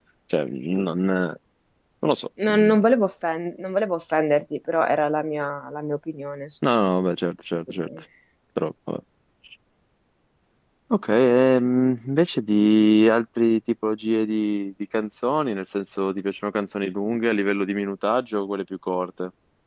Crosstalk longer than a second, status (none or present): none